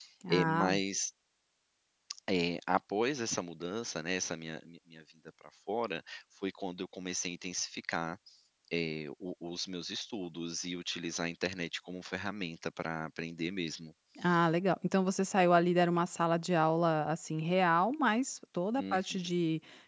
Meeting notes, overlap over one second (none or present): none